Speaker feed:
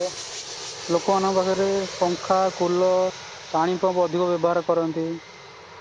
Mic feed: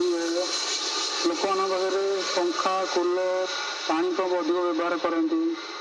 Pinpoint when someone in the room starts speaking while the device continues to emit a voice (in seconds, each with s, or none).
none